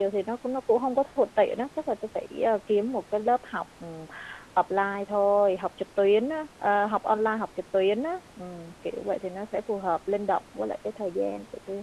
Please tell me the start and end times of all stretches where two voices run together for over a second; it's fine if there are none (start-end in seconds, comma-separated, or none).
none